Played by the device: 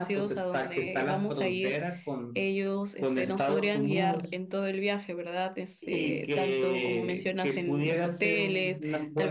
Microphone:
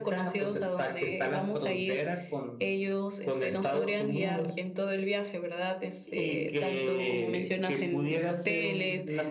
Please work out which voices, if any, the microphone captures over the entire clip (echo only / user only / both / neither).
echo only